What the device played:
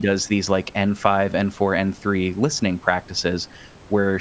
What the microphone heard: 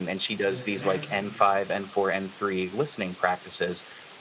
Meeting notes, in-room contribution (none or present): present